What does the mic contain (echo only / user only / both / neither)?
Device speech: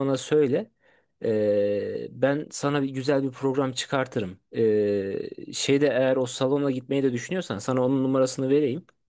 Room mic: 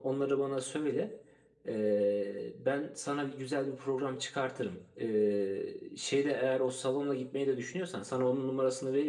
echo only